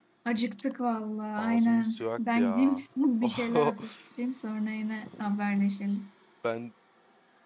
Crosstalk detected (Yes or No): Yes